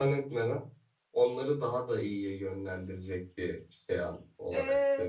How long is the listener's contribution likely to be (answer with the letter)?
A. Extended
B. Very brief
A